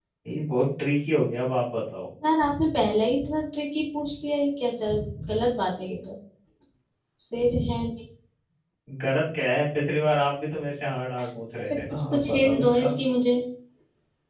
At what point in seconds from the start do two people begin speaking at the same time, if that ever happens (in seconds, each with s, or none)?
11.7 s